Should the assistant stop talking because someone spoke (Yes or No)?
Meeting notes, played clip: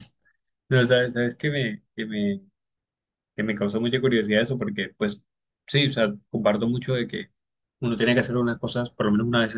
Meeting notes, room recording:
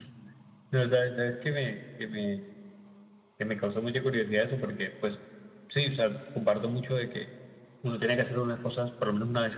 No